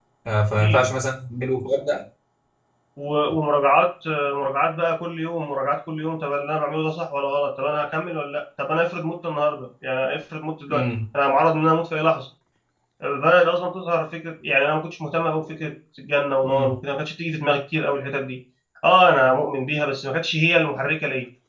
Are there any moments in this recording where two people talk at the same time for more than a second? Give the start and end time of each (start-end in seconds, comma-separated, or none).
none